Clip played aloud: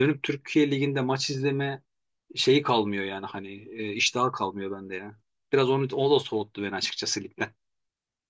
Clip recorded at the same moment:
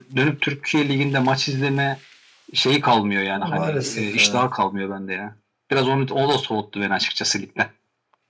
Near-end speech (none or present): present